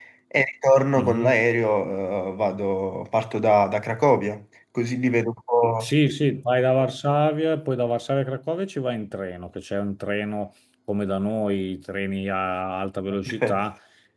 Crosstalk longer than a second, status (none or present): none